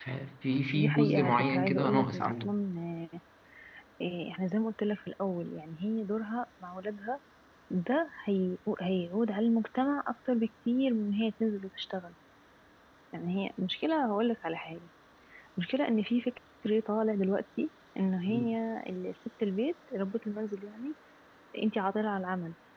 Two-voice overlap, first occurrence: 1 s

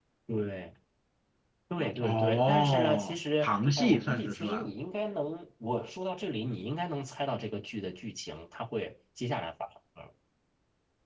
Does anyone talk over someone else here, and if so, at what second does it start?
2 s

